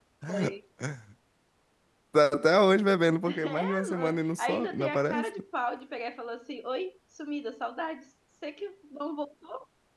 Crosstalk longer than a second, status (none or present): present